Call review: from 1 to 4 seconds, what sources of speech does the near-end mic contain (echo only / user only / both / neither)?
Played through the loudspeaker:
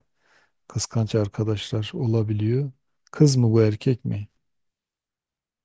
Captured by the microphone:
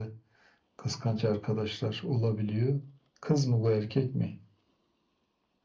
echo only